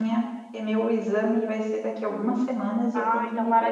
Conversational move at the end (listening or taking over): taking over